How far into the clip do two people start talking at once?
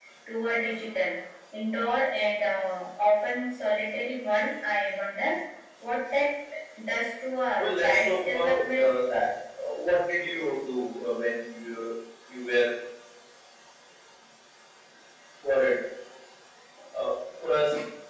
7.6 s

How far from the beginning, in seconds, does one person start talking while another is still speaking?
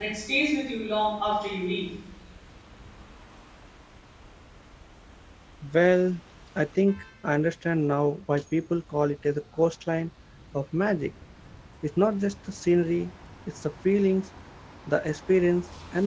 none

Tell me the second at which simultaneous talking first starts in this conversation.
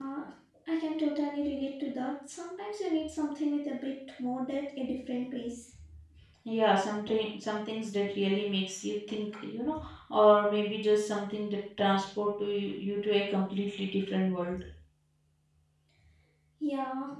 none

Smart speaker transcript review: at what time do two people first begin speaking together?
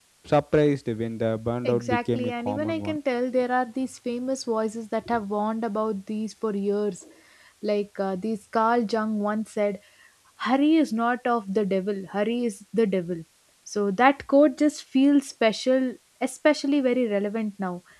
1.6 s

